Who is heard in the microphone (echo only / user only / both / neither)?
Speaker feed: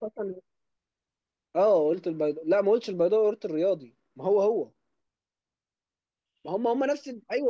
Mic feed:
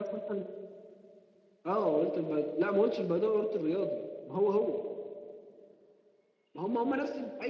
echo only